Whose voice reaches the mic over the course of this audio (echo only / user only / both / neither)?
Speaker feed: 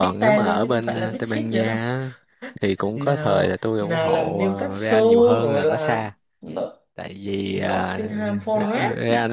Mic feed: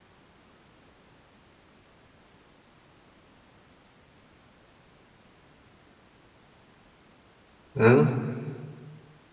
user only